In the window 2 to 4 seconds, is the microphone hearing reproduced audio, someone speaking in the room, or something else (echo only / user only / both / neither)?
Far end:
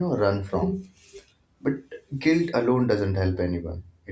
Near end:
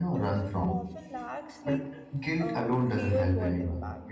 both